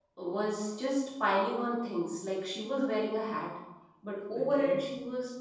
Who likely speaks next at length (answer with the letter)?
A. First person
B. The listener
A